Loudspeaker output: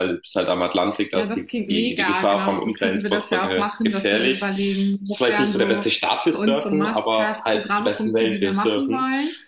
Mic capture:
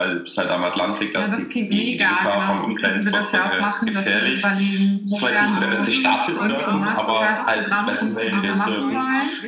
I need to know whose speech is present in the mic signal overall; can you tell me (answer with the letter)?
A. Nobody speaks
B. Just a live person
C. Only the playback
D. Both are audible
D